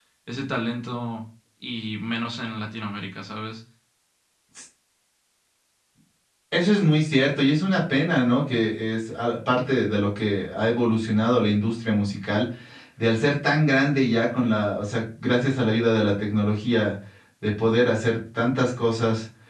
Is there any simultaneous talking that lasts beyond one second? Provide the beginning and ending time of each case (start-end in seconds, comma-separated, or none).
none